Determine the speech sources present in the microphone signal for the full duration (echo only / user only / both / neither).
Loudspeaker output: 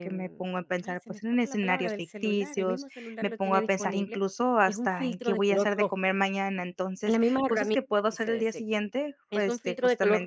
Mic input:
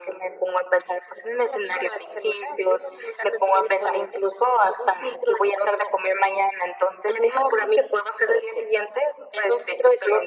echo only